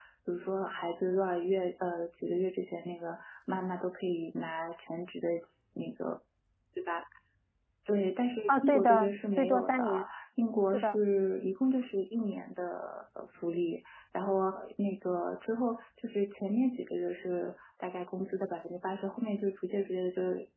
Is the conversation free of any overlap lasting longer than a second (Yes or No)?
No